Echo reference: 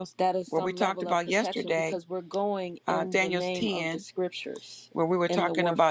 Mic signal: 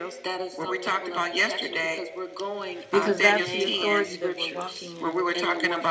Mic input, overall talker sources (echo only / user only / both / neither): both